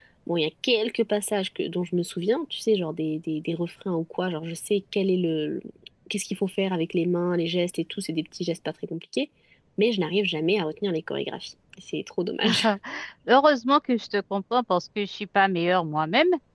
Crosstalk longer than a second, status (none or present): none